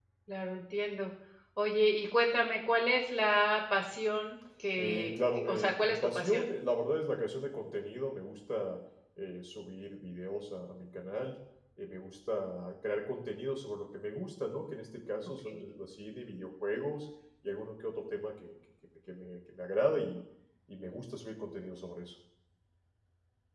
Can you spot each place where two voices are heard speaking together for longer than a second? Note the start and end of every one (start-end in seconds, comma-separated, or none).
4.8-6.5